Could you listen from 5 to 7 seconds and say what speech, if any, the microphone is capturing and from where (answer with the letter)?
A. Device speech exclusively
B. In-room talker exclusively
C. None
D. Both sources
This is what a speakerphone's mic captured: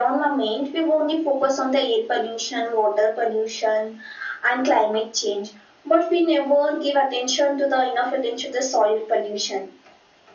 A